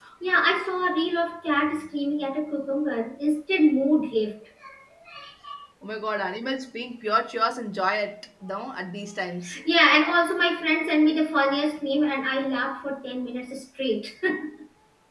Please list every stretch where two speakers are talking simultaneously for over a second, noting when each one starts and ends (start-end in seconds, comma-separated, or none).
none